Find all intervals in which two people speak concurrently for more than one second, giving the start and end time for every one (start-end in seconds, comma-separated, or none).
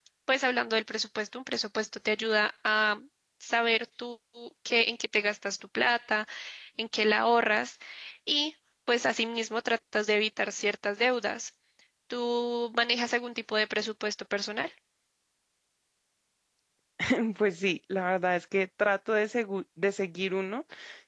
none